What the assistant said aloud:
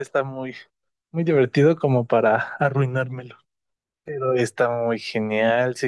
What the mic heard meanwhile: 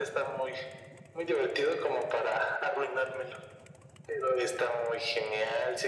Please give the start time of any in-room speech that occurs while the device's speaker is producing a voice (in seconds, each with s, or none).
none